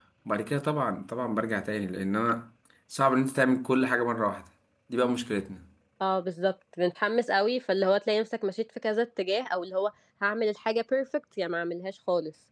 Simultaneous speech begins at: none

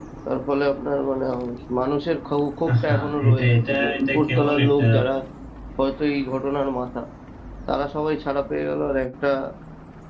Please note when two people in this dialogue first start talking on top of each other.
2.6 s

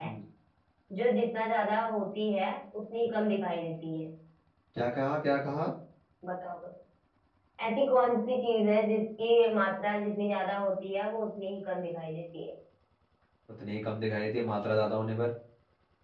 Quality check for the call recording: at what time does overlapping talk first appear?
none

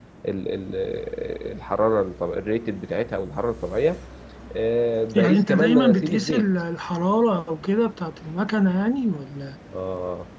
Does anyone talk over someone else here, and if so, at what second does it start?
5.2 s

